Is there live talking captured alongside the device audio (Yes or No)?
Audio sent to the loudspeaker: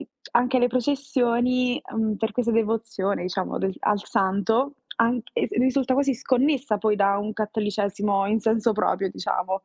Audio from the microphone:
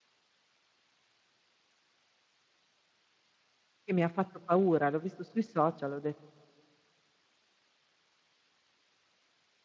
Yes